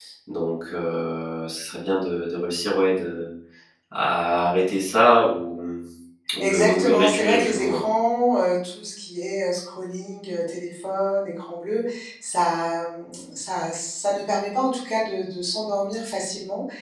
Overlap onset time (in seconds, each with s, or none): 6.4 s